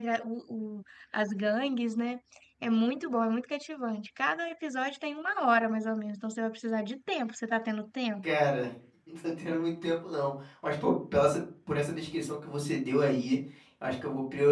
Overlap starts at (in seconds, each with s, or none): none